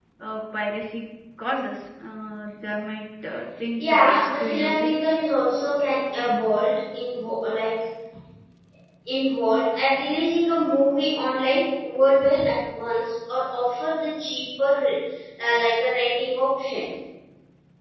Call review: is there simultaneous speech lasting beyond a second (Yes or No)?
Yes